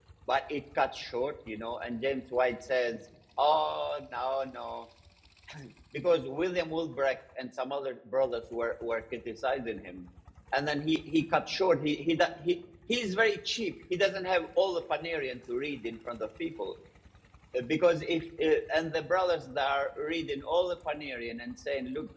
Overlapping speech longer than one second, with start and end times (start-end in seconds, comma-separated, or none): none